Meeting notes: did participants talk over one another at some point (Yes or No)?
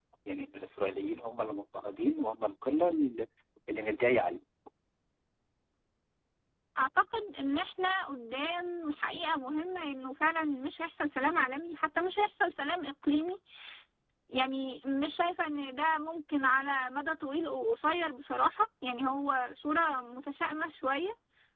No